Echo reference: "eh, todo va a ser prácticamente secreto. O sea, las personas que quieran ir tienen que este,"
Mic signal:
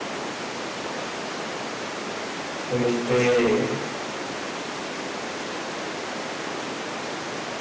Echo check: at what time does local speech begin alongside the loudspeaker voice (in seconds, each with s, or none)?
2.7 s